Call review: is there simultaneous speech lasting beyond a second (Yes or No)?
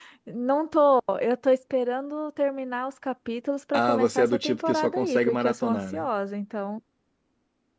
Yes